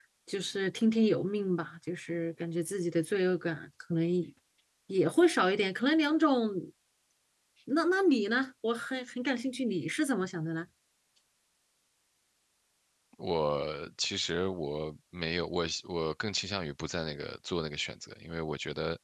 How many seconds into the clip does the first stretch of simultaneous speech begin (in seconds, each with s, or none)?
none